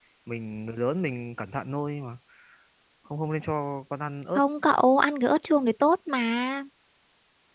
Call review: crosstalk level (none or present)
none